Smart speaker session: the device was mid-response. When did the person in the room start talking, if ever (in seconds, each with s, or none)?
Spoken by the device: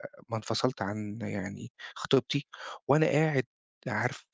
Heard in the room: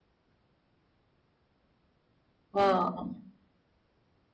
2.5 s